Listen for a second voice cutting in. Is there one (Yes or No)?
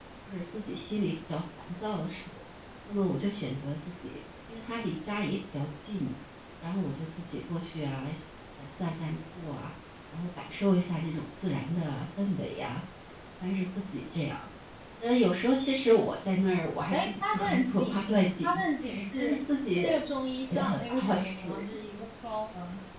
Yes